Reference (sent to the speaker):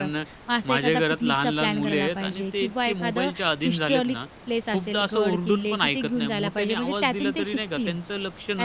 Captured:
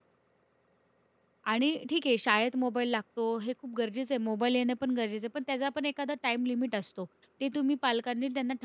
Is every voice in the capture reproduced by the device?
No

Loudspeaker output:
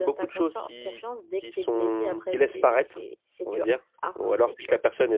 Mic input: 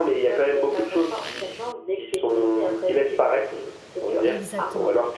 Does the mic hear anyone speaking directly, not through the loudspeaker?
Yes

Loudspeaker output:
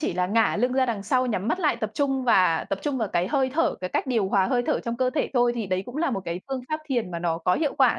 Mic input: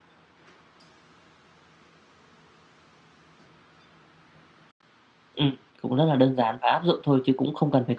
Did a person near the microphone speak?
Yes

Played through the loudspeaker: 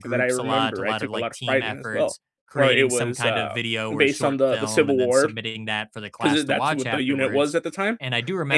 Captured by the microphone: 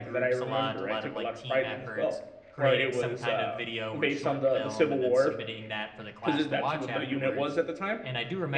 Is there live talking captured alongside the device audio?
No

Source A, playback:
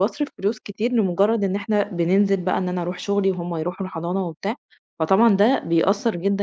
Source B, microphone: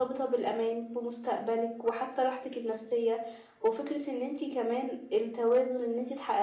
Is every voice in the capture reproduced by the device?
No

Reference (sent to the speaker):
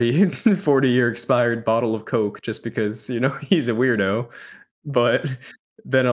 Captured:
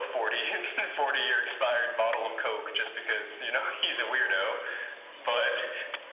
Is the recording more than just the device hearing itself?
No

